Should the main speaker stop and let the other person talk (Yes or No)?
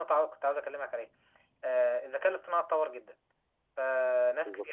No